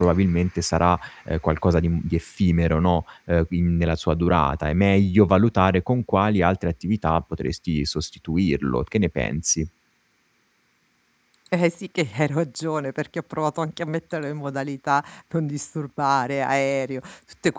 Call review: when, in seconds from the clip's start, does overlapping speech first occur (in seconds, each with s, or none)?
none